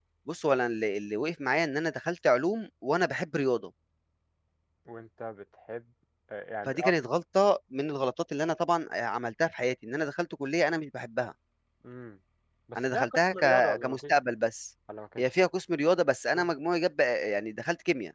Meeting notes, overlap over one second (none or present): present